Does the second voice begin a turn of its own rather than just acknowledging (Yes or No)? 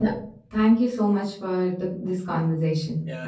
Yes